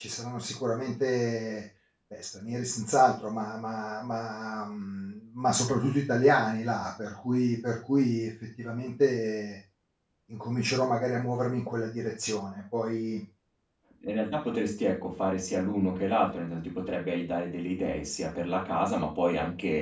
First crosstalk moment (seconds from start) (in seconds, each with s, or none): none